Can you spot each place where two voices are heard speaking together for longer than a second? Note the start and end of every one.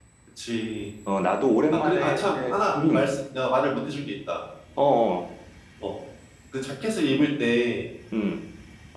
1.7-3.0

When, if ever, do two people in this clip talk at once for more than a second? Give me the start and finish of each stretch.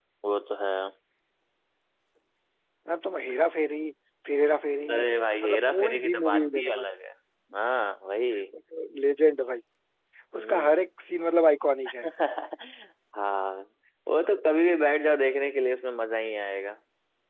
5.4-6.9

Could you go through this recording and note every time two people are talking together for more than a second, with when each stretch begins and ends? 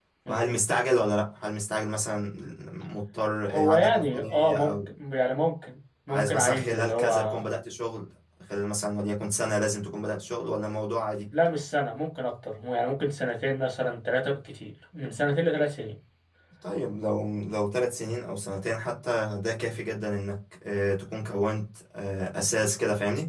3.5-4.7, 6.1-7.4

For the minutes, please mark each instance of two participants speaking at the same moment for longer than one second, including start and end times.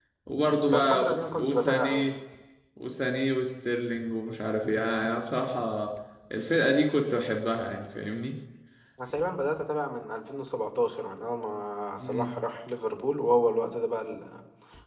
0.7-2.1

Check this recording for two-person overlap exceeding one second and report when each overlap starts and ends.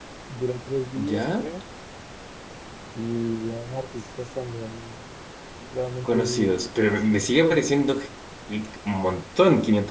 6.0-7.6

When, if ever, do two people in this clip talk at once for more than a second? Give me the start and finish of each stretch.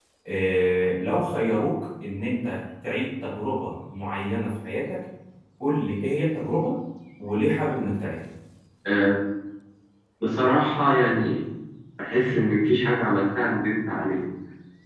none

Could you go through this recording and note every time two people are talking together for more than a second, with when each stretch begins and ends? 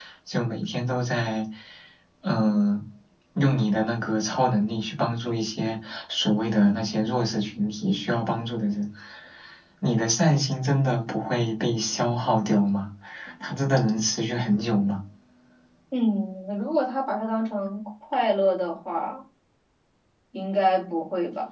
none

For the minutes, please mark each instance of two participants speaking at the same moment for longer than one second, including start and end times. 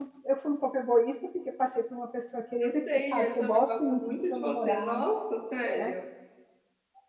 2.6-5.1

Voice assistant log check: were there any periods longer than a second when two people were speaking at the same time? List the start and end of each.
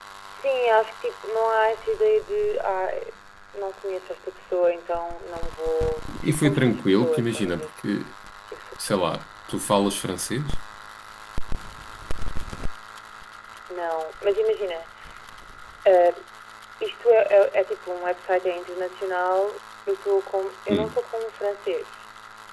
6.2-7.7

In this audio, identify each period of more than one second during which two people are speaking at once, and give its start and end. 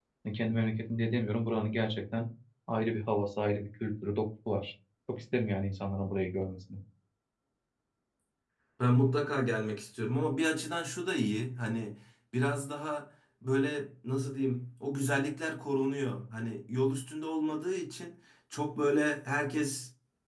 none

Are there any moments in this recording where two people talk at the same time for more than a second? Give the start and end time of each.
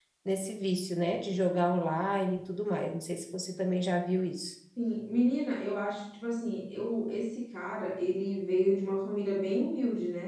none

